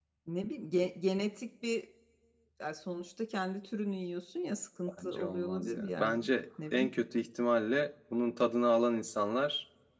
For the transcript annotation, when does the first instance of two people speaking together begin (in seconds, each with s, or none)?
5.0 s